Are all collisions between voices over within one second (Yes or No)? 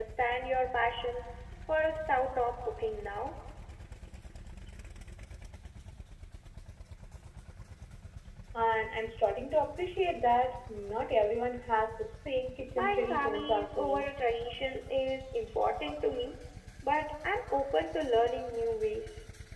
No